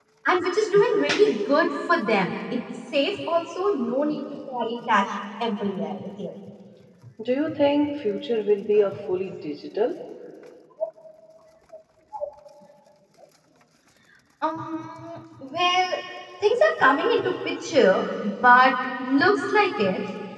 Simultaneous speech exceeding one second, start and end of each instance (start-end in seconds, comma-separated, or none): none